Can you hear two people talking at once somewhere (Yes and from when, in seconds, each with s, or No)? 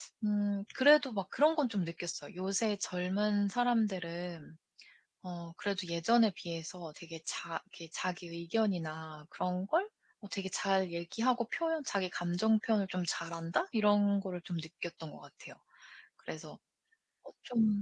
No